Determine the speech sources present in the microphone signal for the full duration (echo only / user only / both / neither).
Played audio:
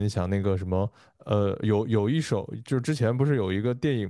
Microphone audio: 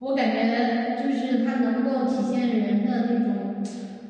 user only